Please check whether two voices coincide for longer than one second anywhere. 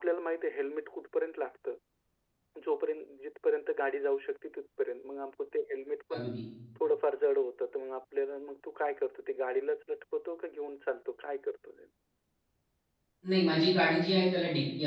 No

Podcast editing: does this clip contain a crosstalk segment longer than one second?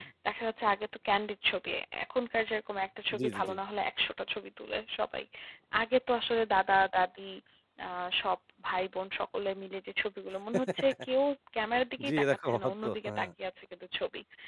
Yes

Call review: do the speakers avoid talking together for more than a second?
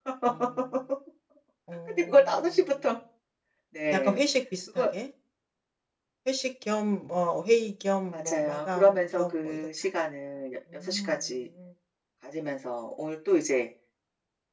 No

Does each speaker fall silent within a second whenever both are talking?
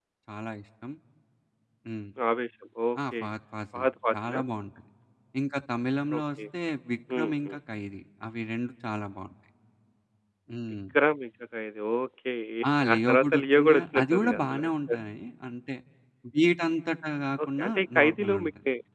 No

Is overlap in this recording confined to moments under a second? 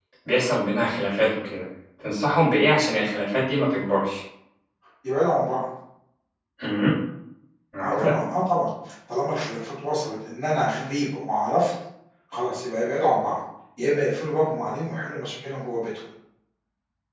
Yes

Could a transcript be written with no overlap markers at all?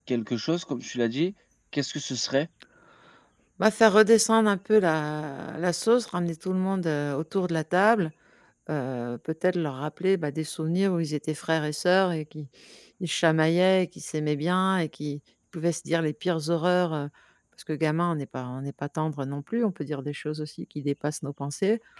Yes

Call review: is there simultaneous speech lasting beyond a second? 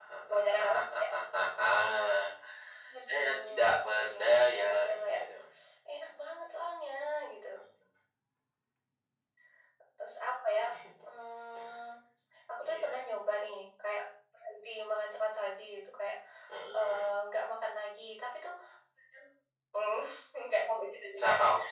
Yes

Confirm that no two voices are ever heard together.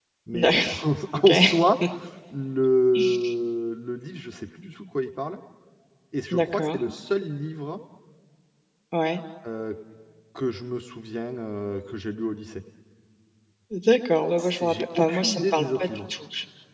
No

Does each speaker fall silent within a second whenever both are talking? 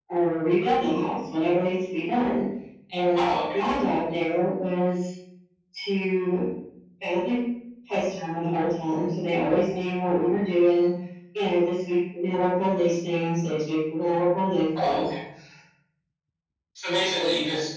Yes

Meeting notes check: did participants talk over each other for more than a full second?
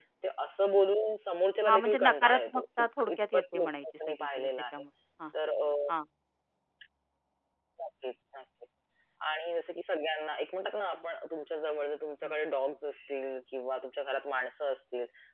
Yes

